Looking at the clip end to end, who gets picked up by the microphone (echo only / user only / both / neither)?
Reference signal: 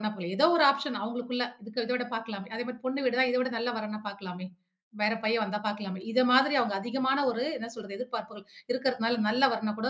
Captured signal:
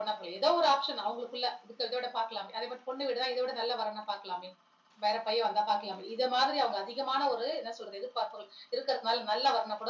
echo only